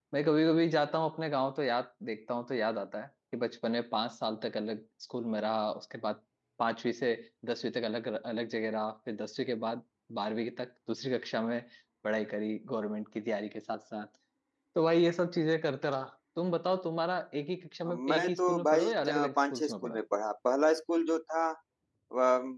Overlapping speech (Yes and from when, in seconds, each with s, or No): Yes, from 17.8 s